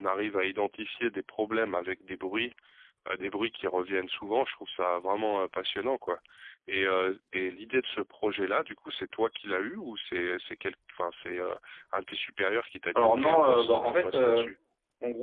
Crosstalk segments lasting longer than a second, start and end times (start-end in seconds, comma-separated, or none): 12.9-14.5